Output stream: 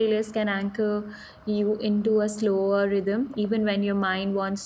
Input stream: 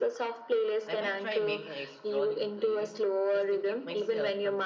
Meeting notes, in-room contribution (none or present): present